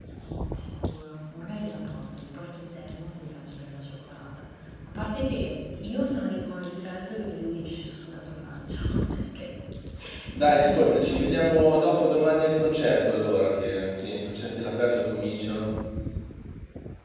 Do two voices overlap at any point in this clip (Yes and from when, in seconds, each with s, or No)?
Yes, from 10.3 s